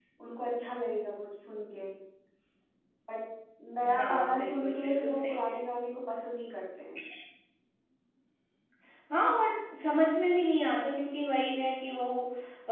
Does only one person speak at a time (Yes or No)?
No